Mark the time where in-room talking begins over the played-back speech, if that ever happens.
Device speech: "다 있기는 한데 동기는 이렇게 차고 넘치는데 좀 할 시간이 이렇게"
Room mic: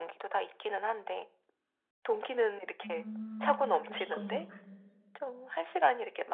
3 s

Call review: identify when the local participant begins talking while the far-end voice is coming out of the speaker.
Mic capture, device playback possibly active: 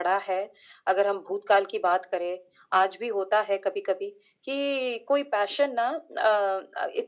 none

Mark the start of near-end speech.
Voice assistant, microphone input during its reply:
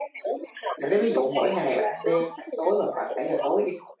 1 s

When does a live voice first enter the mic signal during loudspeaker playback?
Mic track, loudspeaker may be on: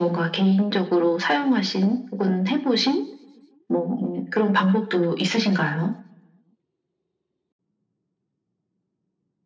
none

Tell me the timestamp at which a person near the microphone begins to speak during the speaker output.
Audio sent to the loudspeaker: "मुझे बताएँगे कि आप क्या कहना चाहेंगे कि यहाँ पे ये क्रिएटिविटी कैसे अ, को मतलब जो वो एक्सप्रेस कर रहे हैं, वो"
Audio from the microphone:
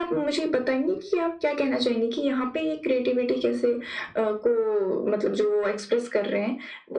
none

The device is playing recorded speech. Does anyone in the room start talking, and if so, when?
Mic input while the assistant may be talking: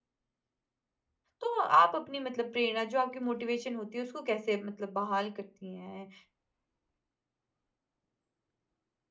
1 s

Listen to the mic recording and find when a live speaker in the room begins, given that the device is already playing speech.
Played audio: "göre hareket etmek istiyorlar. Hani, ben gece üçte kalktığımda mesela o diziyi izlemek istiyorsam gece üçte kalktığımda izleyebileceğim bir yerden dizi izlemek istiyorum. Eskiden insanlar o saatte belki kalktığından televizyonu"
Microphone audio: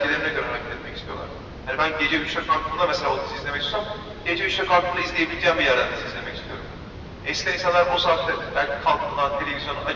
none

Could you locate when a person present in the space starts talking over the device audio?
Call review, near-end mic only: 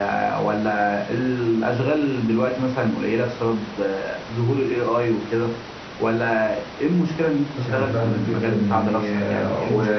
8 s

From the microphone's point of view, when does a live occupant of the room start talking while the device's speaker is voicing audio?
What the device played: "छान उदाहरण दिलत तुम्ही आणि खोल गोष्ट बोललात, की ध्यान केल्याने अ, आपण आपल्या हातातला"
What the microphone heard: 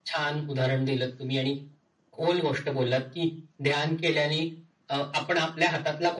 none

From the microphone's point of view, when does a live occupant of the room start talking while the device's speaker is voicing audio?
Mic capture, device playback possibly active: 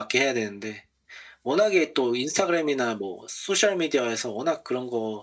none

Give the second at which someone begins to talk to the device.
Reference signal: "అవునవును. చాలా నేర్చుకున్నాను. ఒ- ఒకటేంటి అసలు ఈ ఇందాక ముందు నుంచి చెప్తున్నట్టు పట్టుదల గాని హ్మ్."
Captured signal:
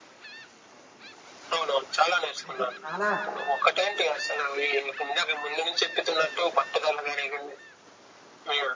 2 s

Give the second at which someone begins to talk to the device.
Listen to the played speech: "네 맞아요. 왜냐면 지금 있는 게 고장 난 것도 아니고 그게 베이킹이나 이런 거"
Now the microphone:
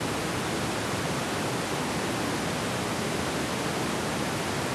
none

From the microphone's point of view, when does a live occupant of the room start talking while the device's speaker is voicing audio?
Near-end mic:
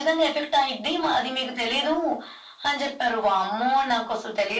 none

